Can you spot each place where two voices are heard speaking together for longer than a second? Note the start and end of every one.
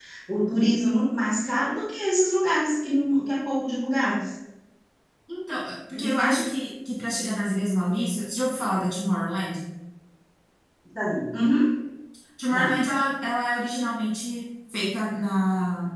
none

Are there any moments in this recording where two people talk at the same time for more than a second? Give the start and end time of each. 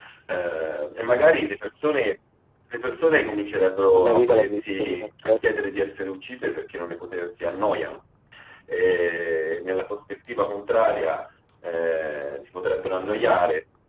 3.9-5.4

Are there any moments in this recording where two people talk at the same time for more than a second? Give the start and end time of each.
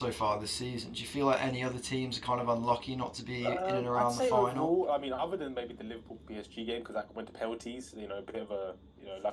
3.4-4.7

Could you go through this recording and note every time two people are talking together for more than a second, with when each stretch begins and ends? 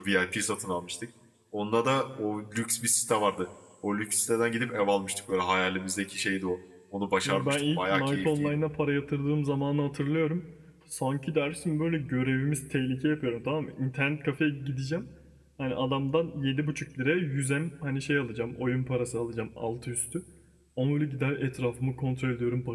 7.2-8.6

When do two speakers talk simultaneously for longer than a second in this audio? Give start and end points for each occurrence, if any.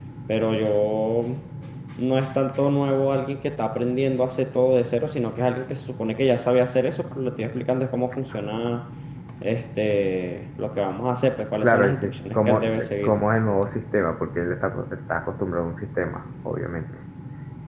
11.6-13.1

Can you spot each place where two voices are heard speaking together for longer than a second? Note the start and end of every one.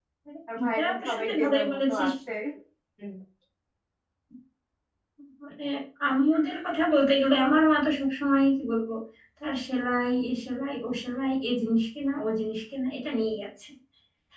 0.6-2.1

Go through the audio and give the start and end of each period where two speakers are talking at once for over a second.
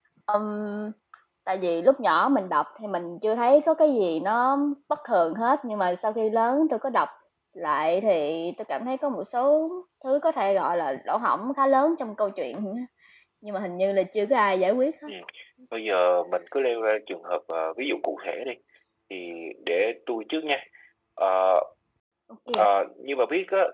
none

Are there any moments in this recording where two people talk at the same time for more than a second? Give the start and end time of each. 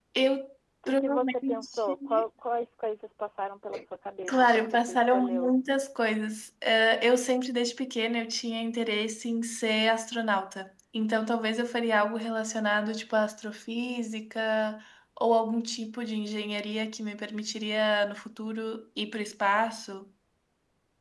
0.9-2.2, 4.3-5.5

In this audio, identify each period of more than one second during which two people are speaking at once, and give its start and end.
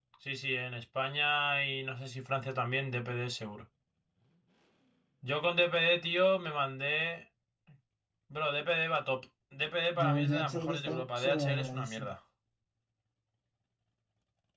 10.0-12.1

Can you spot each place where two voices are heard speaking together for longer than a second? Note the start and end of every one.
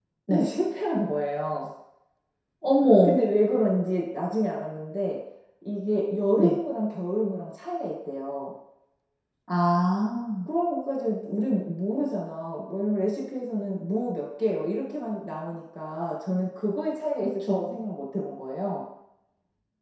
none

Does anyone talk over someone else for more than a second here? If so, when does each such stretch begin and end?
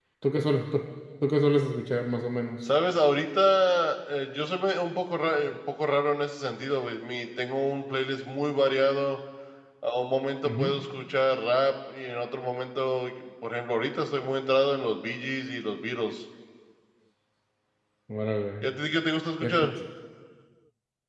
none

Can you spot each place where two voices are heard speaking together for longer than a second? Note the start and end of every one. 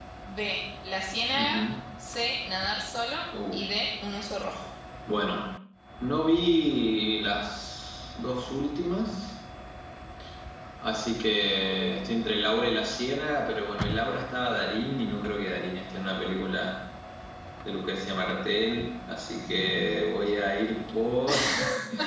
none

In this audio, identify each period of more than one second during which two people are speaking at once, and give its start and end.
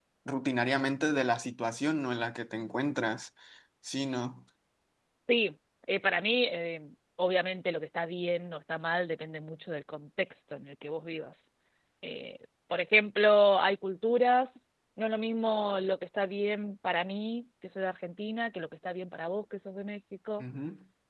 none

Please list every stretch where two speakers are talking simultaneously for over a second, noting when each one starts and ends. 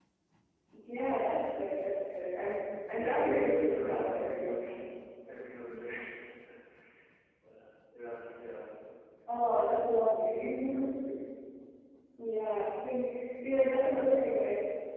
3.0-4.7

